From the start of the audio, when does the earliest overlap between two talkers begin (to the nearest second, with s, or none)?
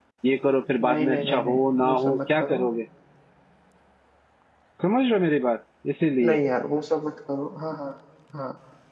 1 s